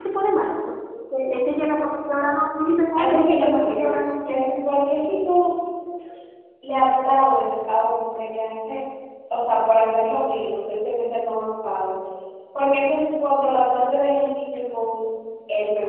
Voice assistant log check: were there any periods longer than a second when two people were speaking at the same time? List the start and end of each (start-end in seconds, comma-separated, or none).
3.0-4.5